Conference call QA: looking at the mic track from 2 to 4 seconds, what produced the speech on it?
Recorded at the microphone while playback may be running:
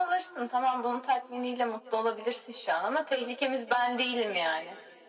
echo only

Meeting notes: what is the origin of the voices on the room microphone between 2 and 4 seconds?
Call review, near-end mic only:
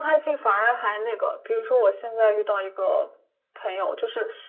echo only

